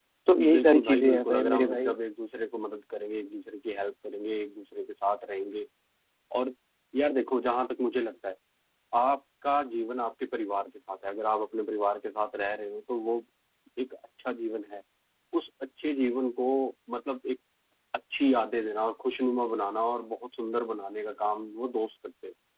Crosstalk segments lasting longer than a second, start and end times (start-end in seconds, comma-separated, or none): 0.5-1.9